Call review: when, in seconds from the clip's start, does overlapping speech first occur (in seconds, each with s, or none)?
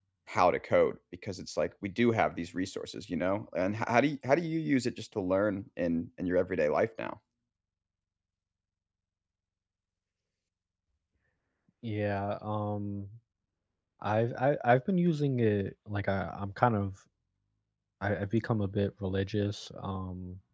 none